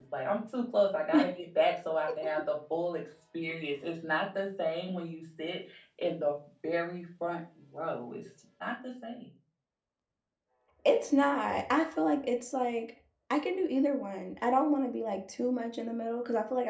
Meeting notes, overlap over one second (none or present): none